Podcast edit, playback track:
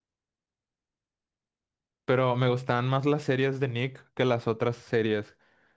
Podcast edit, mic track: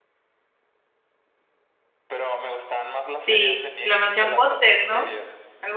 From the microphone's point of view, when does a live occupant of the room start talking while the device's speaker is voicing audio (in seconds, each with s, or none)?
3.2 s